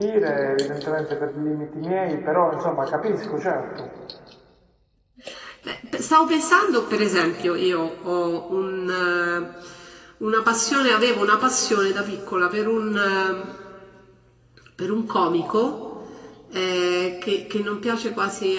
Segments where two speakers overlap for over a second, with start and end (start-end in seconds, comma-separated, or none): none